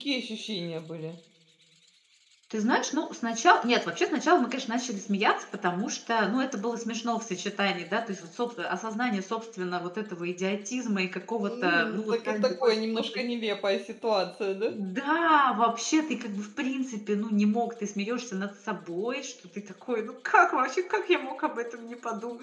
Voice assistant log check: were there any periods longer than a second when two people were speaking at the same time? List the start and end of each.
11.5-13.2

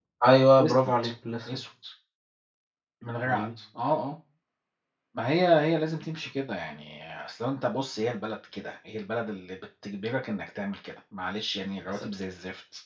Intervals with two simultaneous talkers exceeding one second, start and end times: none

